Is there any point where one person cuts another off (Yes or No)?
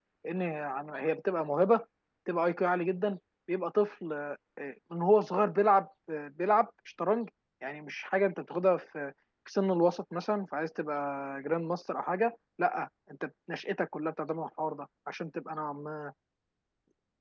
No